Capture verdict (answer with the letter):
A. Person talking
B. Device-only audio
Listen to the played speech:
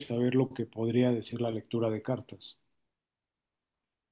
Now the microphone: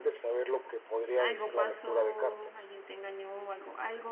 A